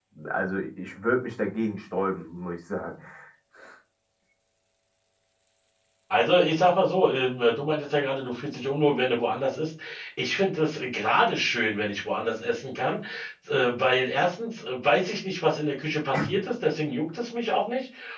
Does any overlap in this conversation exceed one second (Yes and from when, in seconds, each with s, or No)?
No